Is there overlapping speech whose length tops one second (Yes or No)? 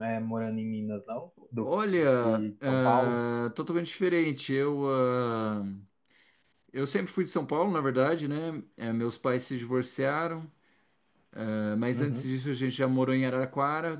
Yes